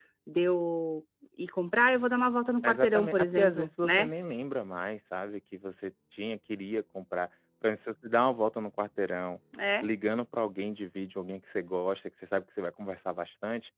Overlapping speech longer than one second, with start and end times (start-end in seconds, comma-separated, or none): 2.6-4.1